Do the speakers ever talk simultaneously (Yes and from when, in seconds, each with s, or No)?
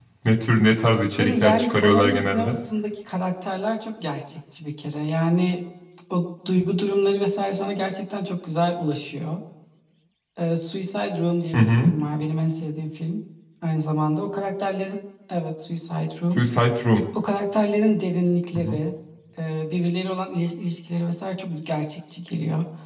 Yes, from 1.2 s